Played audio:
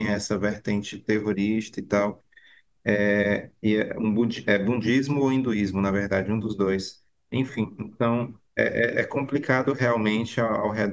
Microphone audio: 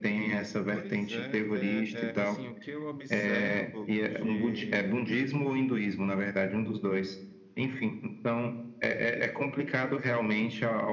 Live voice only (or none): Pois é, é, é, assim, o que eu observo de,